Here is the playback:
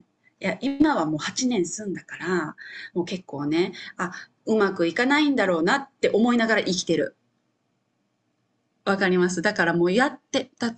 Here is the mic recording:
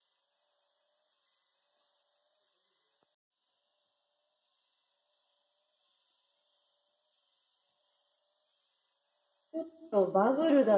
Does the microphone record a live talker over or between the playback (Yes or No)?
Yes